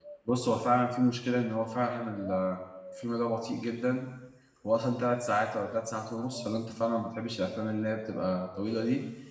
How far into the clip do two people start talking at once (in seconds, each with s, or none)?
none